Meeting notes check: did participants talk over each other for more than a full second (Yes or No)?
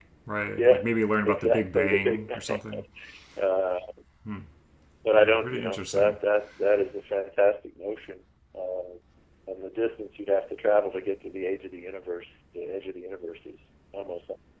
Yes